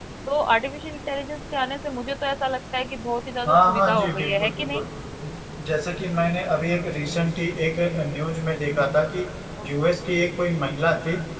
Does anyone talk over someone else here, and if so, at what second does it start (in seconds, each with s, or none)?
3.5 s